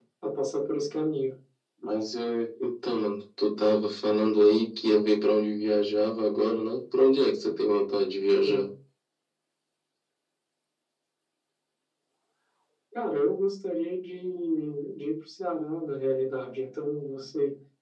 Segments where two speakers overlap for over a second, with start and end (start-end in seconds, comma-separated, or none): none